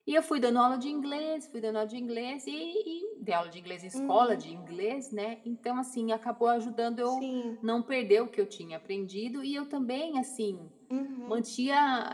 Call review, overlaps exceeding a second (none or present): none